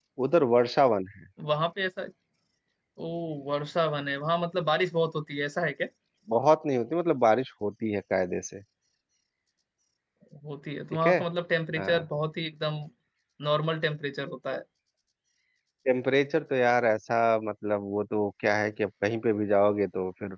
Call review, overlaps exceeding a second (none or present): none